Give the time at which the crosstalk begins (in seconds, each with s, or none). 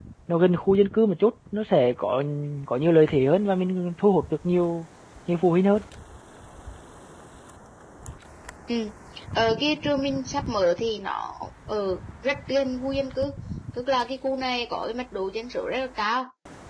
none